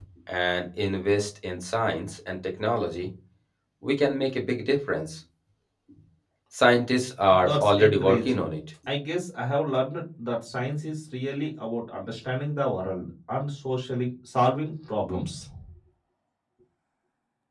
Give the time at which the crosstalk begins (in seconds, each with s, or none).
7.3 s